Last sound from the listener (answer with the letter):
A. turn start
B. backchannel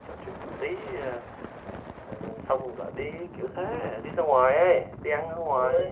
A